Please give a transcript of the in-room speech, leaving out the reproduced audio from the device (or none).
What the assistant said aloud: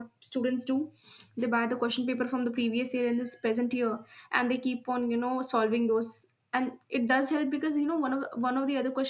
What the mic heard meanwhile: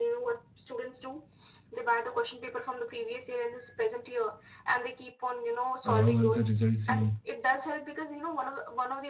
a wrong answer results in